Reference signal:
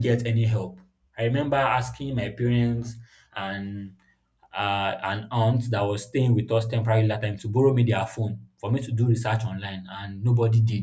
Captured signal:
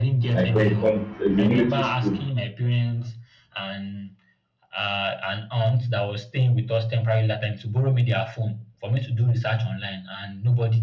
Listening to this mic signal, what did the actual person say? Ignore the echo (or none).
Like when you come, it's a military school.